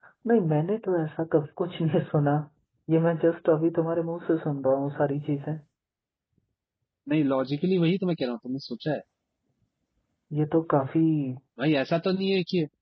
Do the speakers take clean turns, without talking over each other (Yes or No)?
Yes